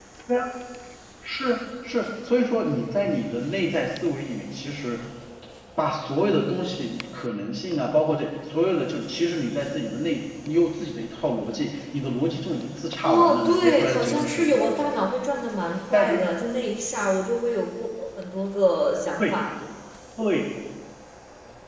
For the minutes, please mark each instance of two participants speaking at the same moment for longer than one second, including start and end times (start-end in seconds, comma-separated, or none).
13.0-15.1